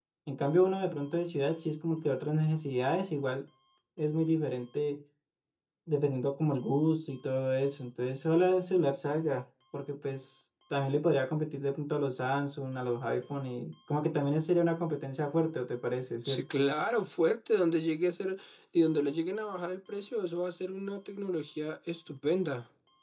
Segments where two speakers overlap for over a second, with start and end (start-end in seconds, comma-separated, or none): none